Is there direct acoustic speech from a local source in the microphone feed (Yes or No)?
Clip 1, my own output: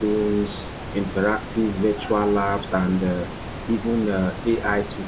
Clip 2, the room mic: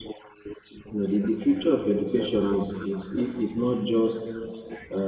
Yes